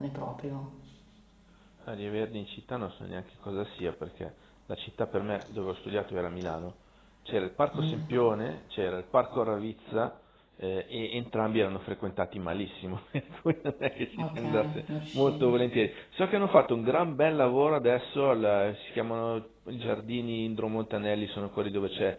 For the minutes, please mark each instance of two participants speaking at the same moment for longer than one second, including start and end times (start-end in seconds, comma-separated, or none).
14.2-15.5